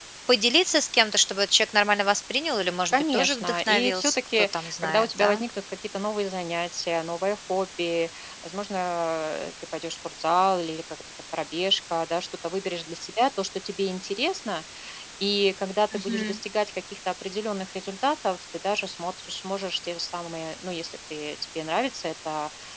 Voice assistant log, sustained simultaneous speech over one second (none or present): present